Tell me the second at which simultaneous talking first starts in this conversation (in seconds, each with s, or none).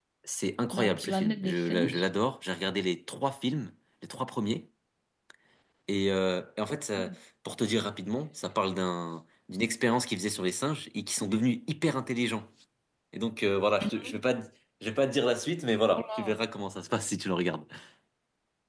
0.7 s